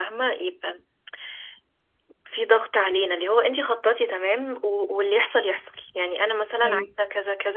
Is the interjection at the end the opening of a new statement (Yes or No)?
No